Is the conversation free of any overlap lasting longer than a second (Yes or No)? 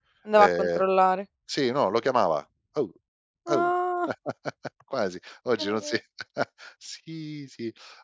Yes